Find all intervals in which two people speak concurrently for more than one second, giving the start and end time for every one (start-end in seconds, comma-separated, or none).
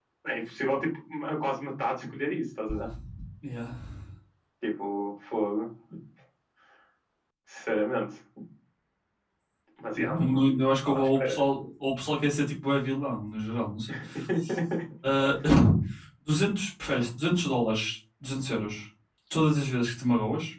9.9-11.4